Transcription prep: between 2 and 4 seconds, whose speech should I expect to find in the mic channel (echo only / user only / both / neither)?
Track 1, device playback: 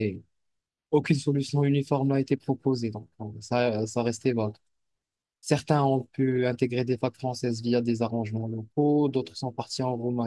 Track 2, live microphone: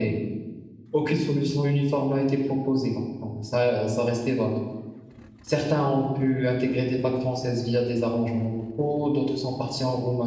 echo only